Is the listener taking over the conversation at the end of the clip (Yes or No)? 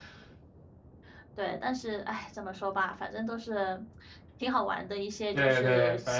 Yes